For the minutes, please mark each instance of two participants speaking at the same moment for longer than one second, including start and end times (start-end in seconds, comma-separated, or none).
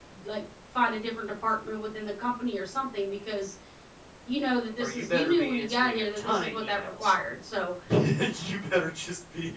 4.8-7.1